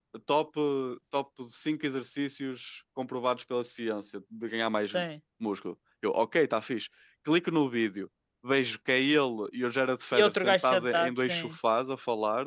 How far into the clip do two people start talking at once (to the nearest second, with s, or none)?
10 s